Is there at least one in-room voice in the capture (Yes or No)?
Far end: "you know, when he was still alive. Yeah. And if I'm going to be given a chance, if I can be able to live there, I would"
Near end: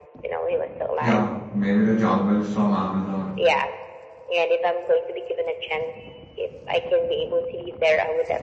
Yes